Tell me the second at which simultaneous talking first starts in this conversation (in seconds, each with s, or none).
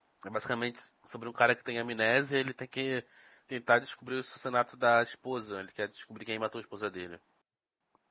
none